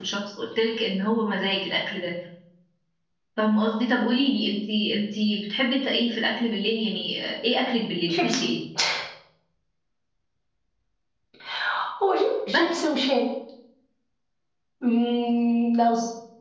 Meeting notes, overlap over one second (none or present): none